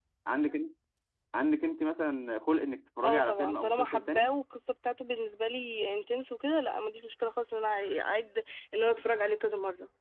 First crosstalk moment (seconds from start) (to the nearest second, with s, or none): 3 s